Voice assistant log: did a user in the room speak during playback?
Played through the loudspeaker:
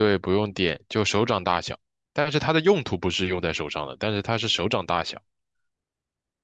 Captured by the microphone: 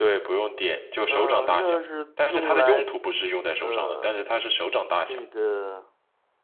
Yes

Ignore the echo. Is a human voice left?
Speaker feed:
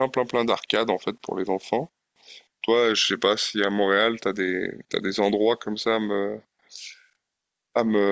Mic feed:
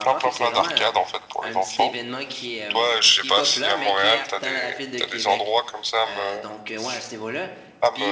Yes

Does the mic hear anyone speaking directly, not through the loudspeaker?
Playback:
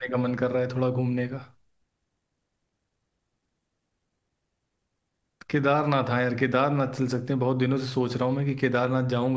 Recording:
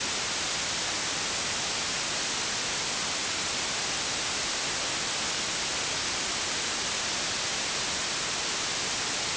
No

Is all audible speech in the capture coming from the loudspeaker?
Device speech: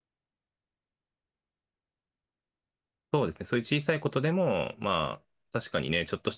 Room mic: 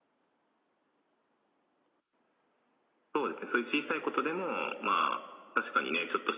Yes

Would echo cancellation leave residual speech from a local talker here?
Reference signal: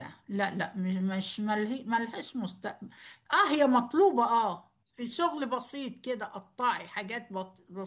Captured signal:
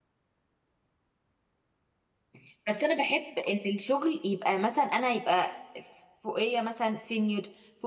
Yes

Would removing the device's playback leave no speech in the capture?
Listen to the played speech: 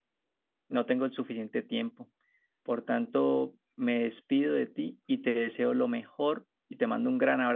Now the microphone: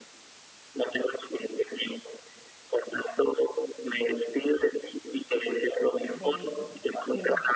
No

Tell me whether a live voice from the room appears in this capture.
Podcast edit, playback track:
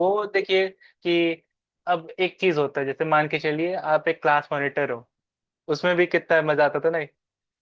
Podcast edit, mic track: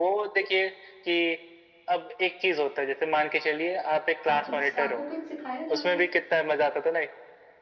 Yes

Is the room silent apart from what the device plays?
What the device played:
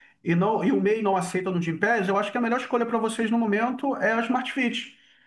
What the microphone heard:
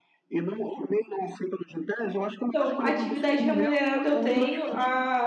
No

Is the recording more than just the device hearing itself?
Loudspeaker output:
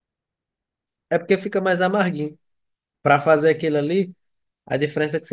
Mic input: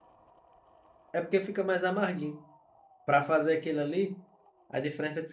No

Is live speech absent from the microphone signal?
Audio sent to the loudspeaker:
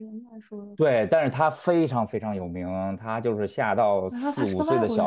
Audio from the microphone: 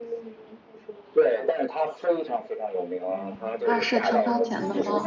No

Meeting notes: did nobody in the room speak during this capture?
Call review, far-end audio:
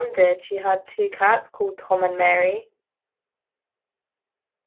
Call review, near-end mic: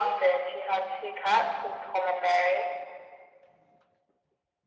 Yes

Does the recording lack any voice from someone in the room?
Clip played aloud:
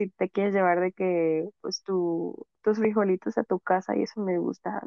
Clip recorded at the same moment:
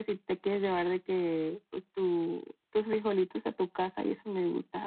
Yes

